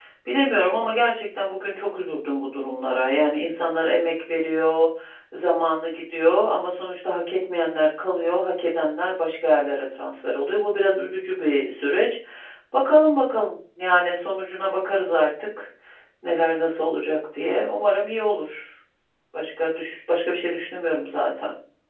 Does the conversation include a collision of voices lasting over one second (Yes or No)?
No